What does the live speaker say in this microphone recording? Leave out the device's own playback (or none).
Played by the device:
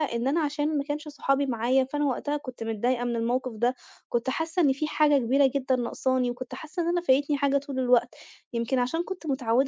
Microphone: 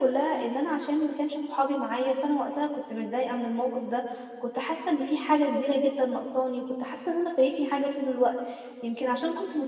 none